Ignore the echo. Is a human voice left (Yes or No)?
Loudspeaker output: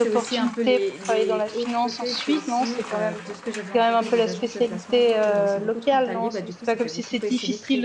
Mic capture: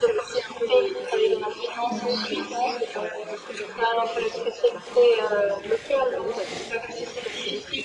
Yes